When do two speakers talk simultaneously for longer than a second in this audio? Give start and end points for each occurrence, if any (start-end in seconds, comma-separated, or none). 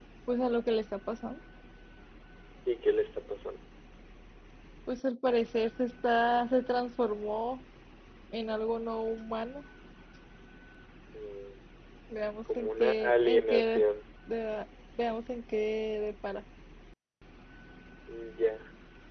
12.6-13.8